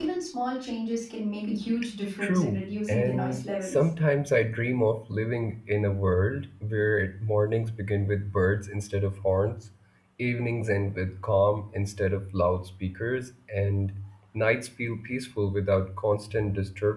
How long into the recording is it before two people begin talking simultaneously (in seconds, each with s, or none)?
2.2 s